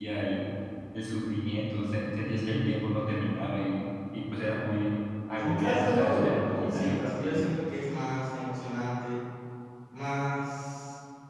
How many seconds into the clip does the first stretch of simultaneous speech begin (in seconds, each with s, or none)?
5.3 s